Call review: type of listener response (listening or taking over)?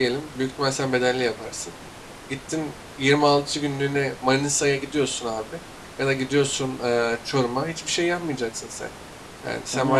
listening